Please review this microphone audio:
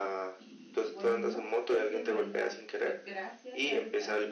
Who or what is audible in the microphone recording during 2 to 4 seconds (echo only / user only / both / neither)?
both